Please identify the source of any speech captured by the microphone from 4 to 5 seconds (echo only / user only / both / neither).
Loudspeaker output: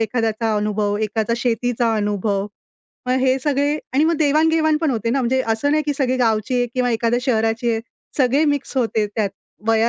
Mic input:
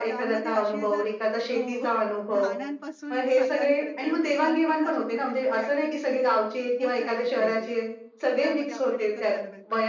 both